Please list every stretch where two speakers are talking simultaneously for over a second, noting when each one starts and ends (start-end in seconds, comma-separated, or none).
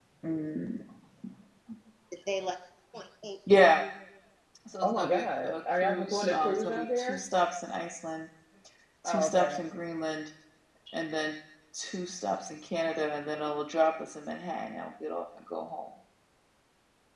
4.8-7.2